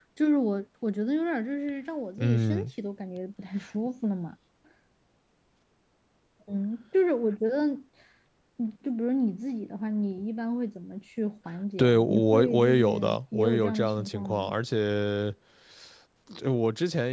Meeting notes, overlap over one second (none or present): present